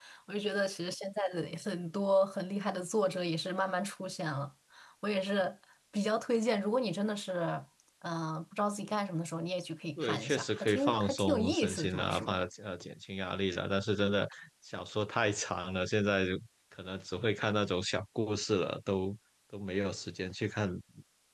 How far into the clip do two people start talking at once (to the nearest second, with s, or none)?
10 s